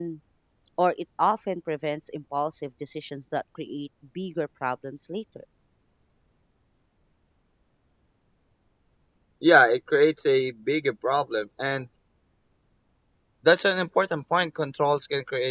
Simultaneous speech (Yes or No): No